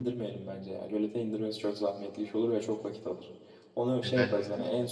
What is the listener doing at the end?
listening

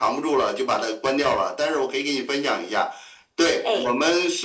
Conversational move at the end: listening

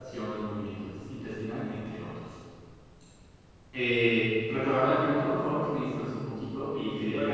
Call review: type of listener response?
taking over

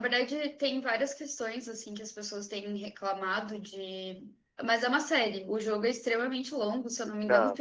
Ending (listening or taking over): listening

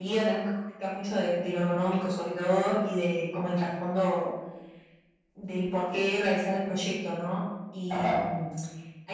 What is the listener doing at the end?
listening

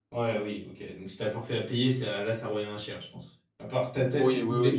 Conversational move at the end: taking over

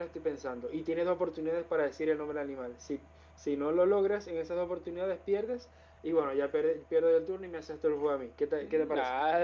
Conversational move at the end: taking over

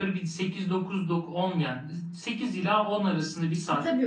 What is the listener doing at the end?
taking over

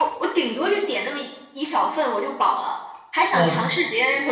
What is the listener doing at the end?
listening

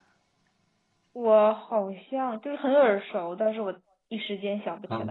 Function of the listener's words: taking over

